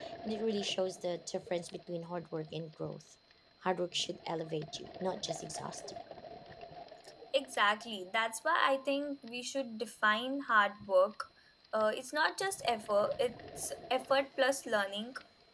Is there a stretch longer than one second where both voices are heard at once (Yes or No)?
No